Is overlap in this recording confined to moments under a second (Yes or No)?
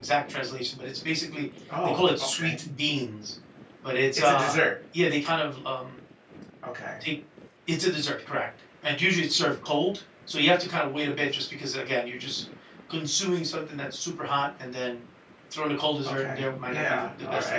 No